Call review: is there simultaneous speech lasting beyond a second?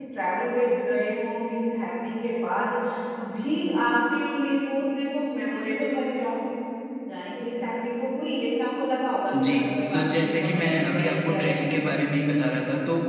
Yes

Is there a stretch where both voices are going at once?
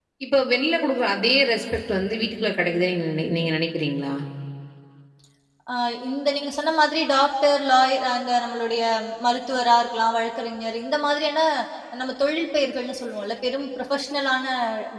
No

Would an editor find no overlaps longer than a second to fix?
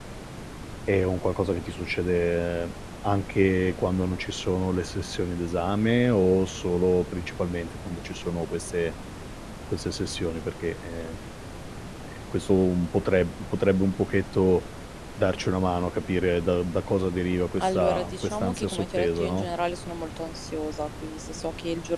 No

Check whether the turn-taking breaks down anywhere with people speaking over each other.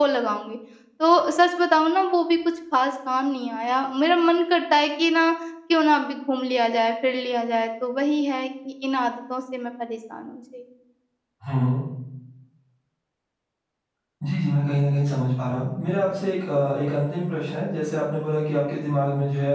No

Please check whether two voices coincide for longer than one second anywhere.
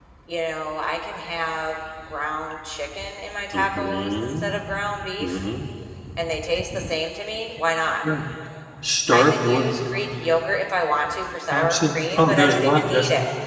Yes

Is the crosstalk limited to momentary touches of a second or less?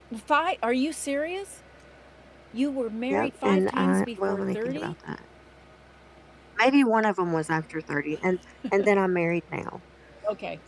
No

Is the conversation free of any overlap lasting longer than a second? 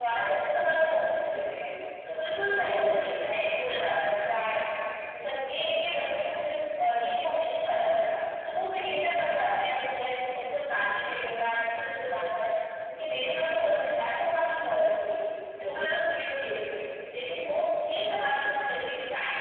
No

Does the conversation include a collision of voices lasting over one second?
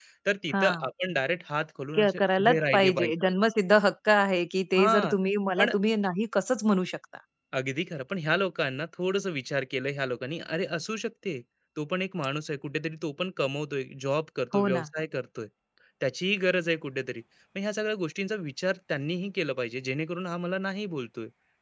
Yes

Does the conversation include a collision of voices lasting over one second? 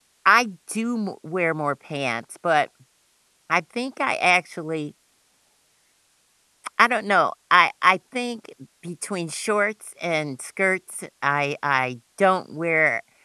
No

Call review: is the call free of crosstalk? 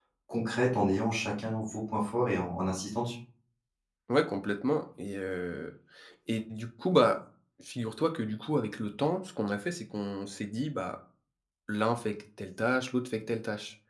Yes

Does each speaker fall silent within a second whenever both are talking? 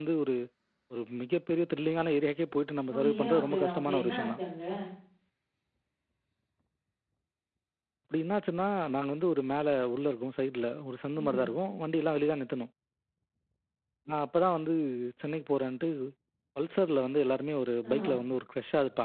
No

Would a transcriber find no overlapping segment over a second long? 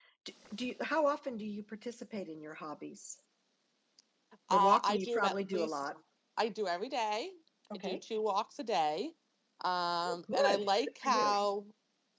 No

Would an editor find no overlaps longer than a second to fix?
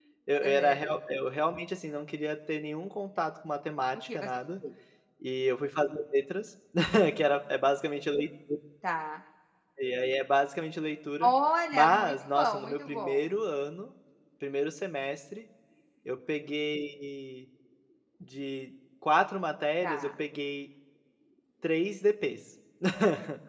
No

